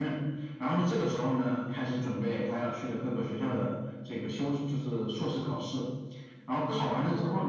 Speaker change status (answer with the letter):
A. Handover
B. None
B